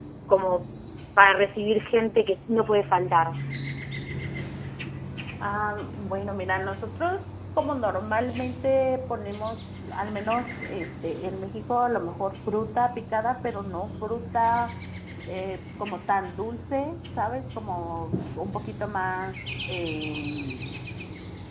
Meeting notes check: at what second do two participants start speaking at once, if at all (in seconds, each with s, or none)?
none